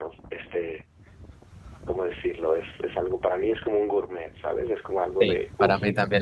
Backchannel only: No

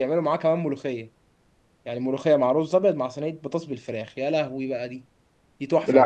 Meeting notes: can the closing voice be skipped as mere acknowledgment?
No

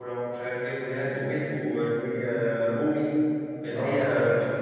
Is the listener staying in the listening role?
Yes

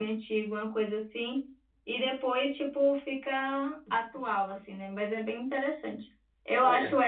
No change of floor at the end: Yes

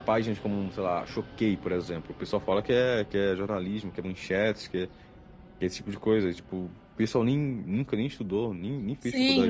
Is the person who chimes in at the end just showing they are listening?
No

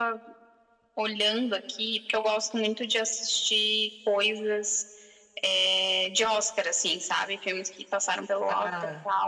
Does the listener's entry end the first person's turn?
Yes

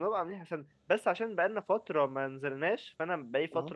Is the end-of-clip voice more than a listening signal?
No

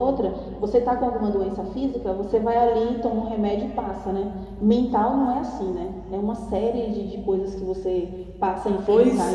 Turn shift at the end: Yes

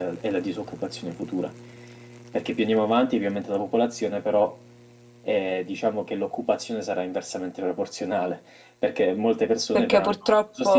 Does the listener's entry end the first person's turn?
Yes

